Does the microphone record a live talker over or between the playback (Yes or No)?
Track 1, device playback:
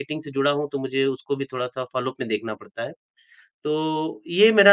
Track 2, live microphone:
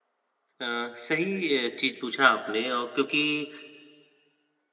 Yes